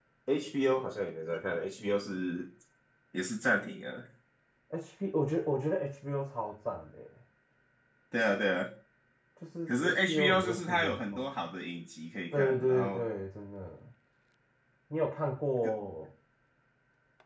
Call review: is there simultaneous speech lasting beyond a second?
Yes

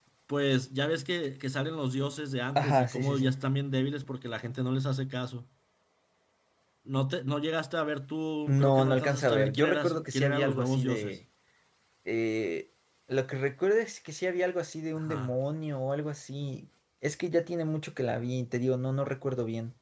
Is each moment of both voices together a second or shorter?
No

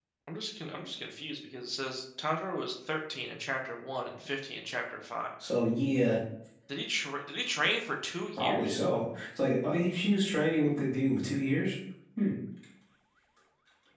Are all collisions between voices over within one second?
Yes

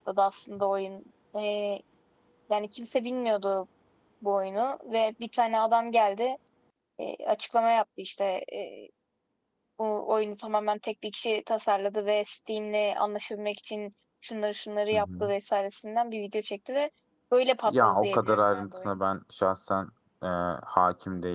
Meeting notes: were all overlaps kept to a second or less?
No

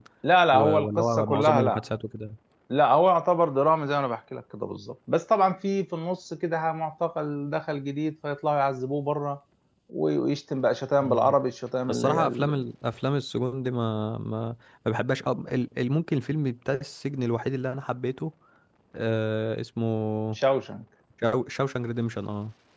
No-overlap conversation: No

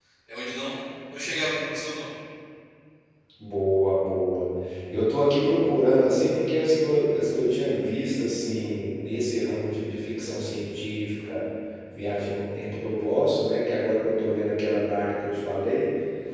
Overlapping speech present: No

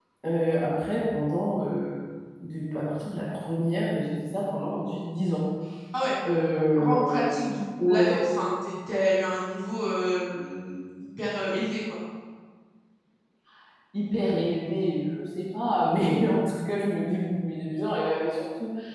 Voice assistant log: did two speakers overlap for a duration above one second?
No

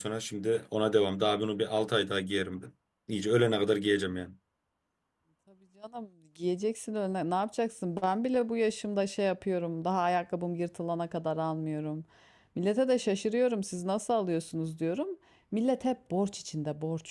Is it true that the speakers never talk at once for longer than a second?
Yes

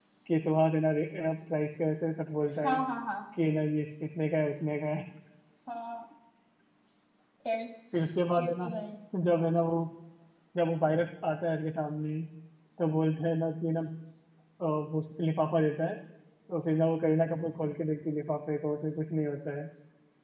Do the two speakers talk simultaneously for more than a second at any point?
No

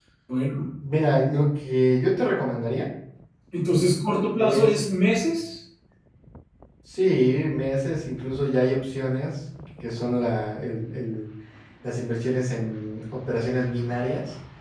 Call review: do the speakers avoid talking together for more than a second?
Yes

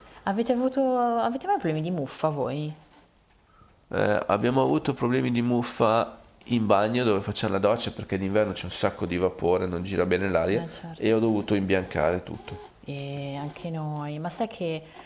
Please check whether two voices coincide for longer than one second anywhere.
No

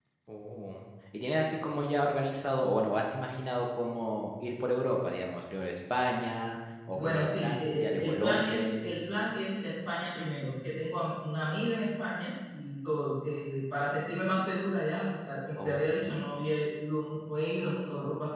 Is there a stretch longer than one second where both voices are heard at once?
Yes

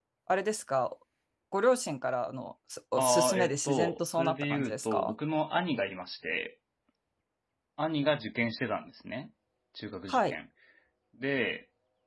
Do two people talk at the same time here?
Yes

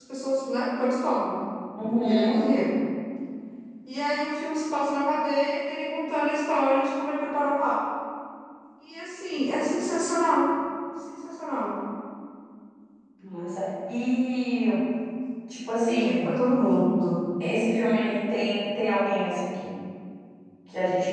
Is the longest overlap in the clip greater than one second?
No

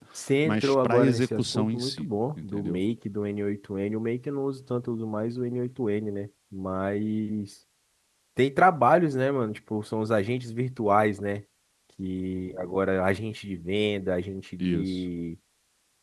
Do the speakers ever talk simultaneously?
Yes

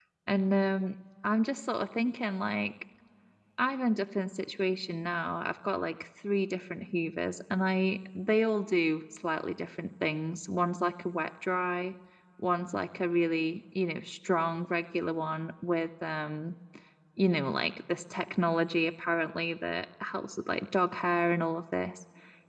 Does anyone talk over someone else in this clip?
No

